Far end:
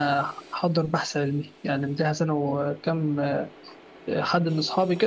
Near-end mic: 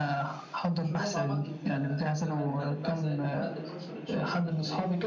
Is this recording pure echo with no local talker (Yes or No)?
No